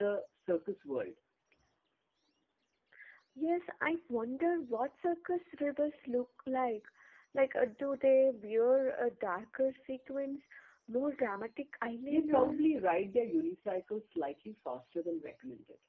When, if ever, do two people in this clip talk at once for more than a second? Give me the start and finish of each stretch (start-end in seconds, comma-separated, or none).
none